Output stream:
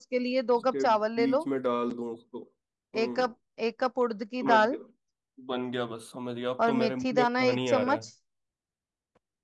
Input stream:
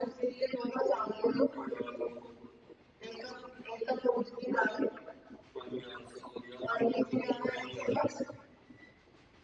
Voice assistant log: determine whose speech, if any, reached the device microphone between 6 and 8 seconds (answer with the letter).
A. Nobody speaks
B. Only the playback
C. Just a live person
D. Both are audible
B